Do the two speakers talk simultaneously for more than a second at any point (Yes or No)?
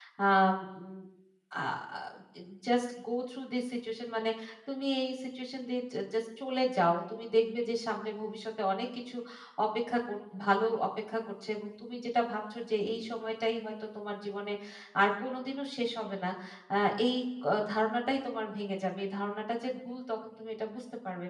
No